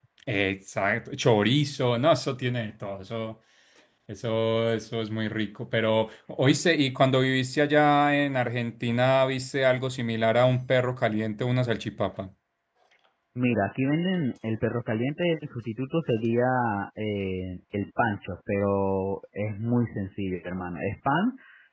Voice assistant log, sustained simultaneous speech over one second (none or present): none